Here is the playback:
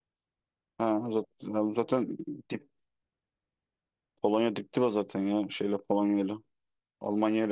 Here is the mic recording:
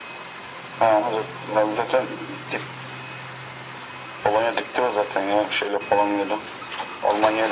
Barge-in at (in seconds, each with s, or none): none